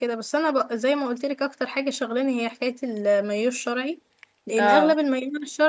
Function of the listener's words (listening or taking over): listening